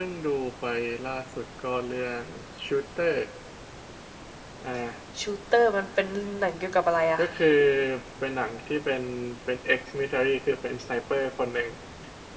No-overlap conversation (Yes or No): Yes